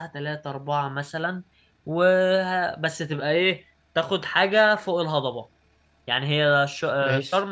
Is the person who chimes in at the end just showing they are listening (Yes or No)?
Yes